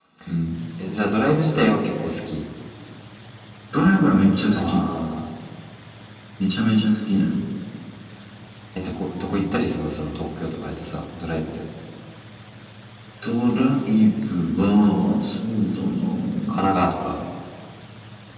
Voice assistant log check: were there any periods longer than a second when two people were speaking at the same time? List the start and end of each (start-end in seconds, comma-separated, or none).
none